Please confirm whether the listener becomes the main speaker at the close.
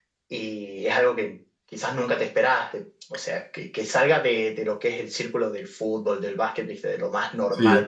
No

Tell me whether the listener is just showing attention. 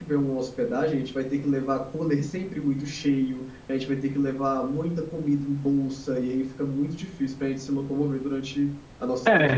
No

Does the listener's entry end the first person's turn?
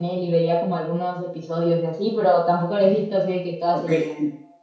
Yes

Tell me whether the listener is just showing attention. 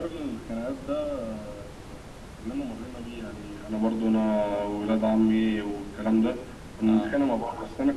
Yes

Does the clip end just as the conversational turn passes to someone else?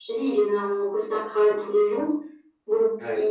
No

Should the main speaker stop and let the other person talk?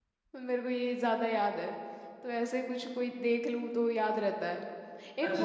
Yes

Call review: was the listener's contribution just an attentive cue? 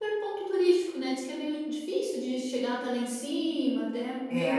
Yes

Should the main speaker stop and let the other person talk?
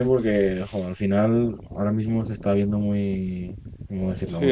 Yes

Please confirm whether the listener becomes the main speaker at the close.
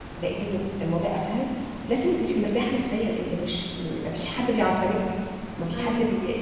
Yes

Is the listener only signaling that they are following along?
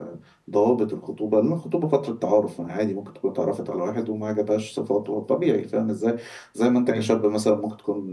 Yes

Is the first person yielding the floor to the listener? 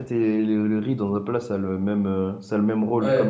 Yes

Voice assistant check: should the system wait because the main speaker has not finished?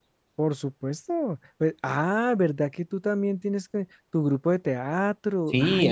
No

